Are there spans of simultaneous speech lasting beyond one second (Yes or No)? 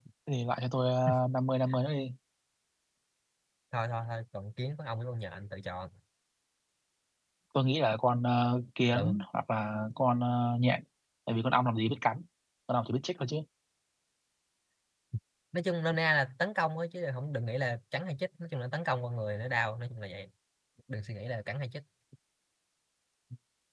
No